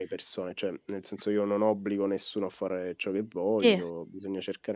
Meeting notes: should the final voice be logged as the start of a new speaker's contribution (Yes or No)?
No